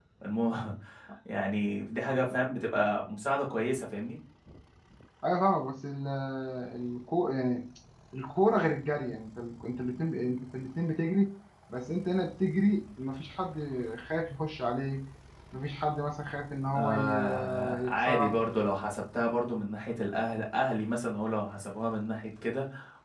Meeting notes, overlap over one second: present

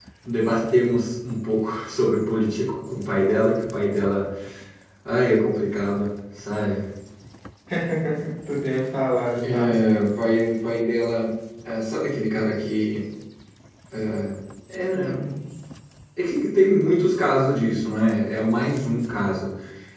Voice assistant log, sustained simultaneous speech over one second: none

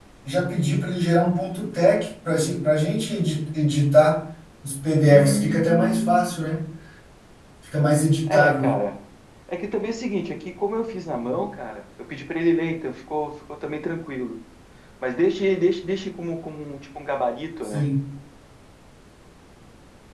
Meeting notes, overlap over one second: present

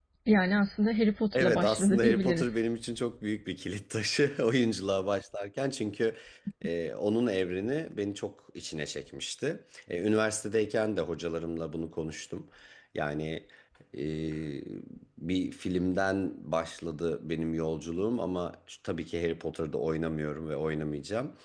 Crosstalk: present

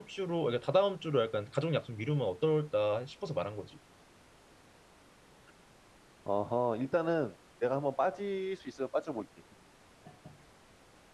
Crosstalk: none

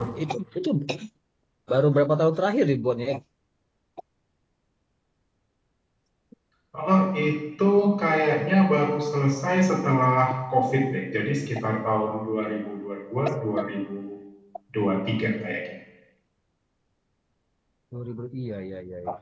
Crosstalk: none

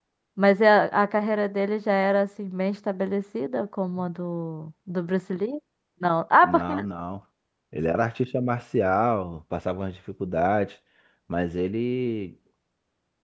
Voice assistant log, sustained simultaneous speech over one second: none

